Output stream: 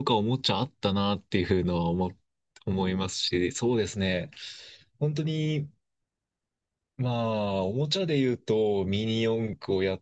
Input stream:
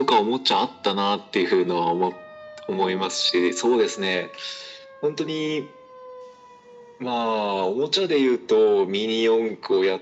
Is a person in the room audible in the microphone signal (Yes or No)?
No